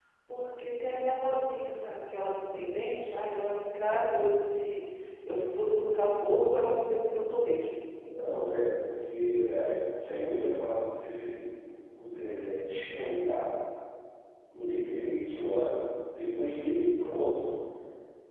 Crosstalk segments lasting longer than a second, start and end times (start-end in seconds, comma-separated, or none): none